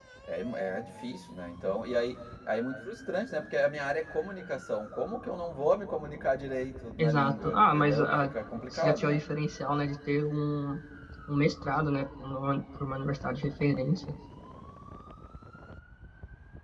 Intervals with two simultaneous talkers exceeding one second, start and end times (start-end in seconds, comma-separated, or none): 7.0-8.3